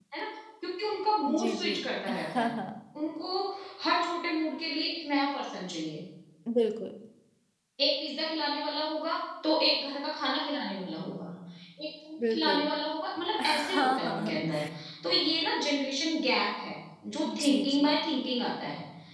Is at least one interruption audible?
Yes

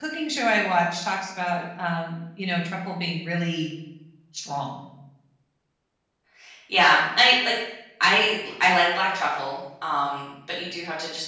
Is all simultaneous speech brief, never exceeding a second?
Yes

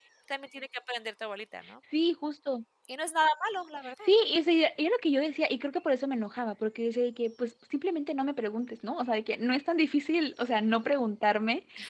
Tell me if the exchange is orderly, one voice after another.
Yes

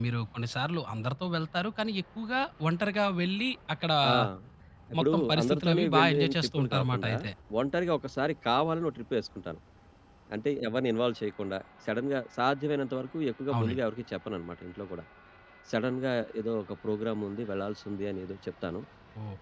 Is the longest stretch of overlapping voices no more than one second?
No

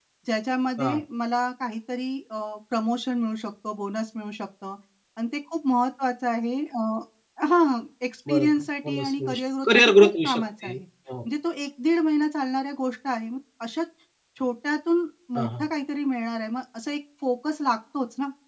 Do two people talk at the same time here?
Yes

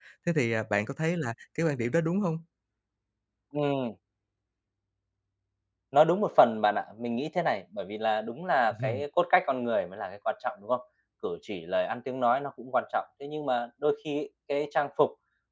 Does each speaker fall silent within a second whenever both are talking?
Yes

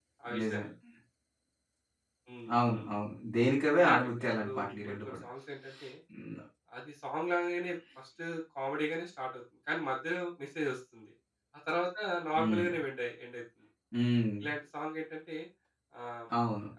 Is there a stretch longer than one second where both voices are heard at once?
Yes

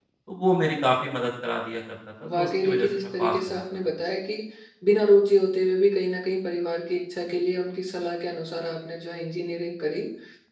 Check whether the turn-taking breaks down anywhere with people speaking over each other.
Yes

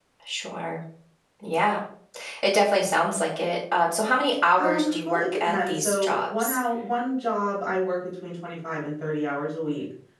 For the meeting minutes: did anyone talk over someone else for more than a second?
Yes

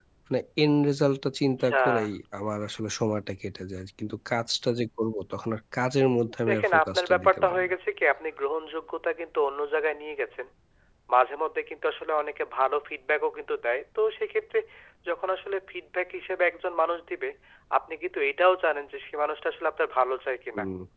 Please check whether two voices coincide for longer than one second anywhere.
Yes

